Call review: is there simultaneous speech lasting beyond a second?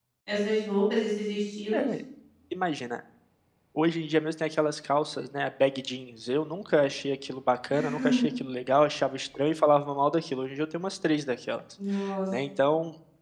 No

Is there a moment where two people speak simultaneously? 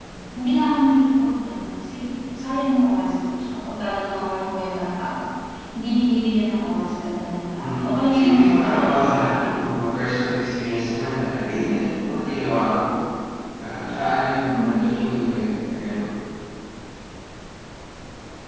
Yes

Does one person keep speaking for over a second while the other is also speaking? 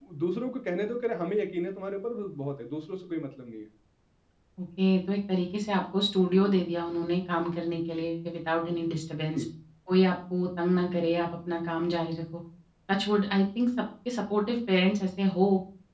No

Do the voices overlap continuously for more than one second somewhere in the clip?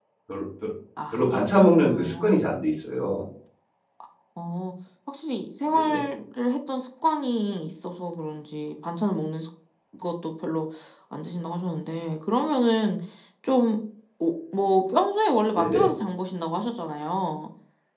Yes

